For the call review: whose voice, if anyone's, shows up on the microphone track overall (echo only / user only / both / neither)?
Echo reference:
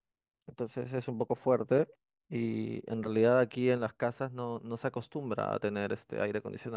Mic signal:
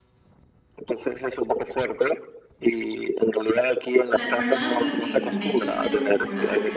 both